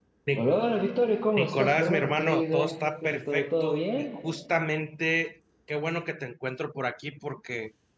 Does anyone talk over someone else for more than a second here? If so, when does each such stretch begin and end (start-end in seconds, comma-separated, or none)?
1.4-4.2